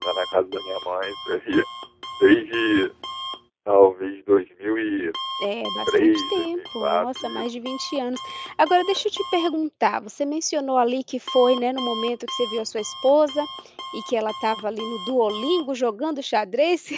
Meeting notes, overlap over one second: present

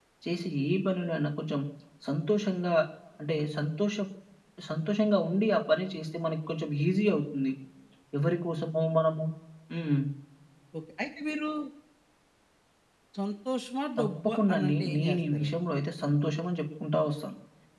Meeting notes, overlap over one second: present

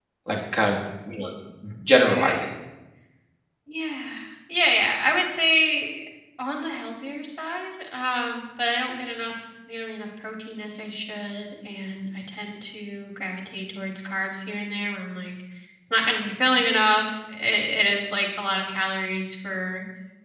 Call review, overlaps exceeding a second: none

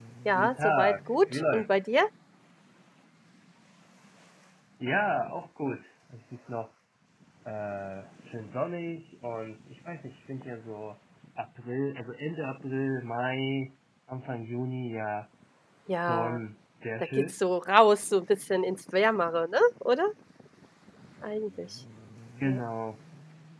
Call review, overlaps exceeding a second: present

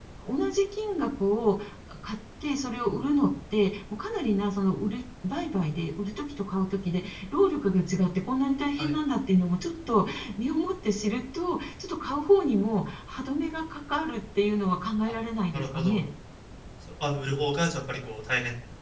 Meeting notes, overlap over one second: none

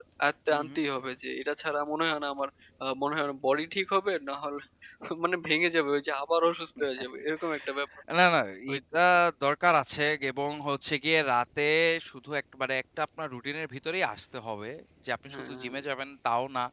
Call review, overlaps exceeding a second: none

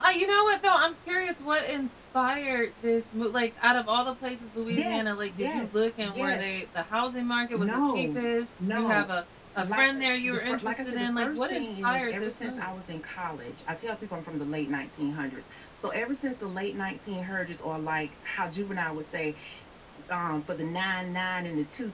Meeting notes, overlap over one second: present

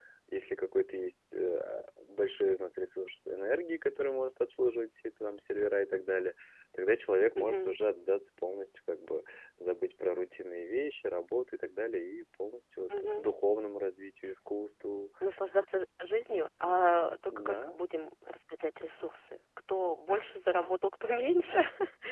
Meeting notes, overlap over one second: none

